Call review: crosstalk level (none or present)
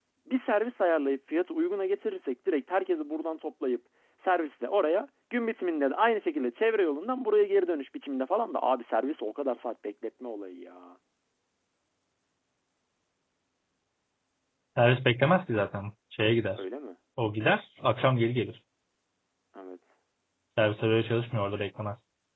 none